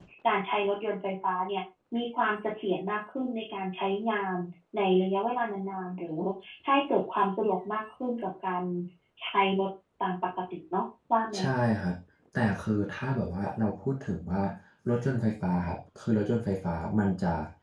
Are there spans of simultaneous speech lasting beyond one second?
No

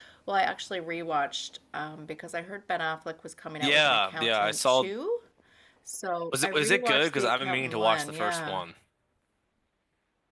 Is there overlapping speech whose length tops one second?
Yes, from 3.6 s

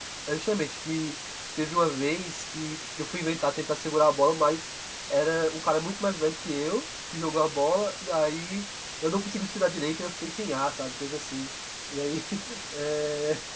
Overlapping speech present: No

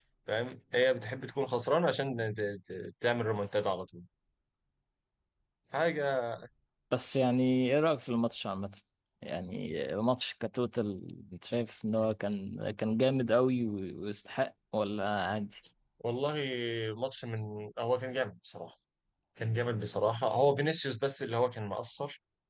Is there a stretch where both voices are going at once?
No

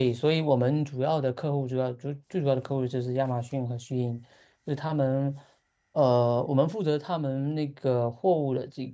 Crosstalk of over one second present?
No

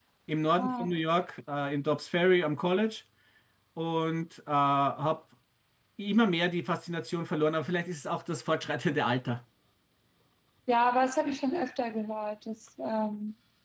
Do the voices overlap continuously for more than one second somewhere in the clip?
No

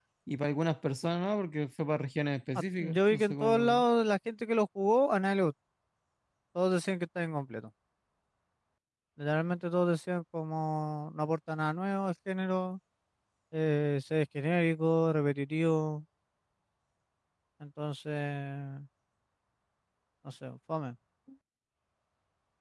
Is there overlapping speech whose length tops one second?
Yes, from 2.6 s

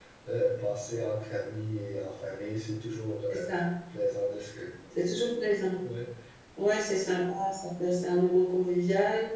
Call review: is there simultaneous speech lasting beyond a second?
No

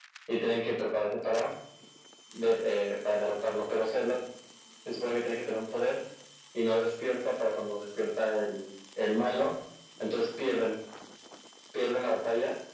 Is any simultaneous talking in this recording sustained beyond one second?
No

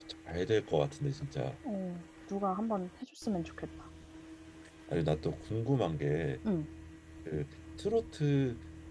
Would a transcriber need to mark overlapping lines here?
No

